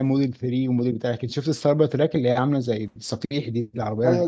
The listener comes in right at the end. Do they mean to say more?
Yes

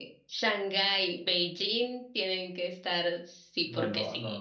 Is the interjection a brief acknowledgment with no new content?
No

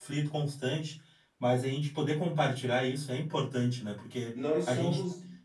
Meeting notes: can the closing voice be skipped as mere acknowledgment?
No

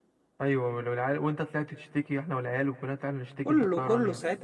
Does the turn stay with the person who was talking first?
No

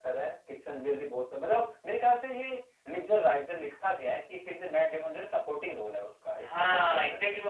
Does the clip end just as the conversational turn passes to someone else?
Yes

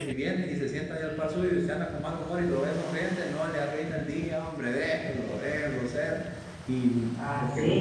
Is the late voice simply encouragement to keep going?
No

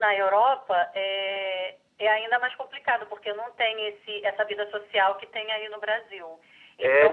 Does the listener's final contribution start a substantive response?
No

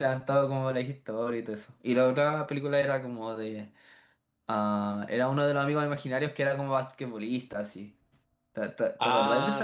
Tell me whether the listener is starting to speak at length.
Yes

